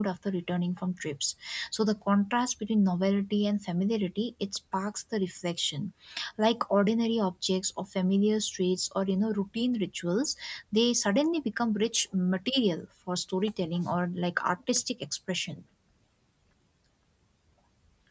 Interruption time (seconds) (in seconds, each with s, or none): none